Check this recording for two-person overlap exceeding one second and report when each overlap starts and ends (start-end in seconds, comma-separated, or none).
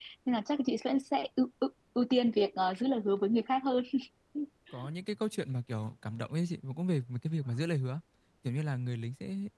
none